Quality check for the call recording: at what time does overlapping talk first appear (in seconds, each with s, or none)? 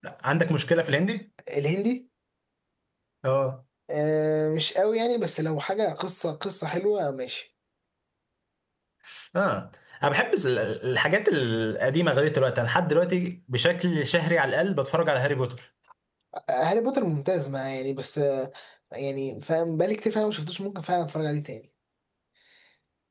none